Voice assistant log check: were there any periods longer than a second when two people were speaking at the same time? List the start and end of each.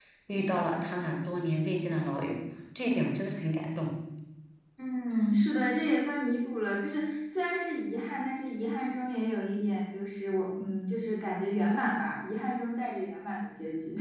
none

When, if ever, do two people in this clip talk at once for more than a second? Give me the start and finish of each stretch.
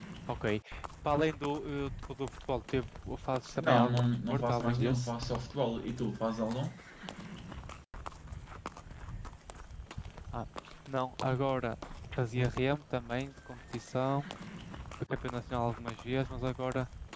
3.6-5.1

